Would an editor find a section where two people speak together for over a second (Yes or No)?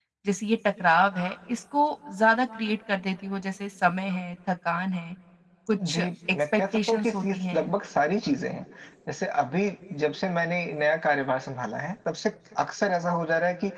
Yes